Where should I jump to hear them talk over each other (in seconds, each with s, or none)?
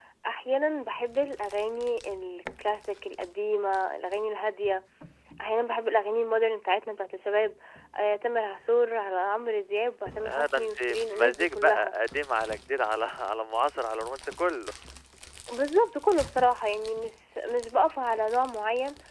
10.2 s